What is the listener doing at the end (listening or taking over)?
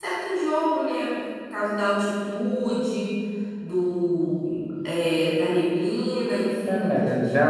taking over